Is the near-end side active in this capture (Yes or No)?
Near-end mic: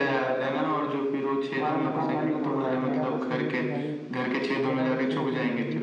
Yes